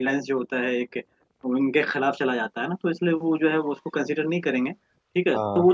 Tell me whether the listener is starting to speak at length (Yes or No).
No